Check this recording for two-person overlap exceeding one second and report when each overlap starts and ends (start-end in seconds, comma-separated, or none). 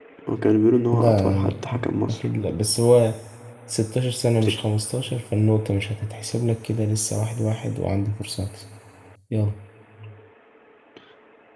0.9-2.3